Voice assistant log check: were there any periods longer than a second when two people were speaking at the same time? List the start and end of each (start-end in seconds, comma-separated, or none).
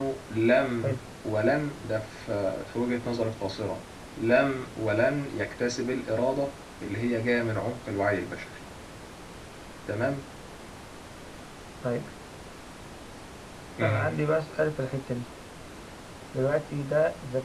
none